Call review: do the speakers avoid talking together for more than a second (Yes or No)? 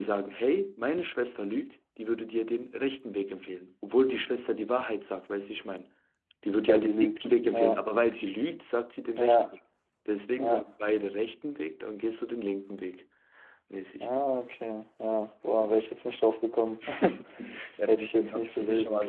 No